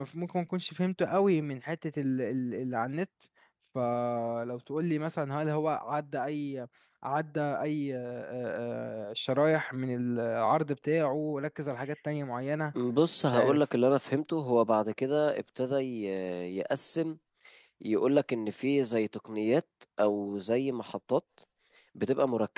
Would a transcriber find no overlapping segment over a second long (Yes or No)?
Yes